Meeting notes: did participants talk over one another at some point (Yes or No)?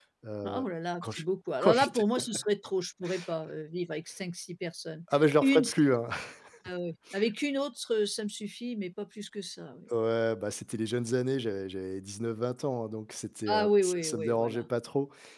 Yes